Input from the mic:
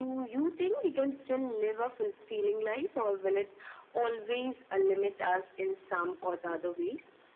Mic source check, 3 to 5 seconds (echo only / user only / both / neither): echo only